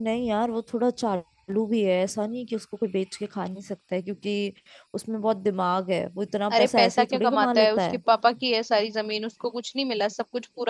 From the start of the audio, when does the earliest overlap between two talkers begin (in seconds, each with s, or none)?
6.5 s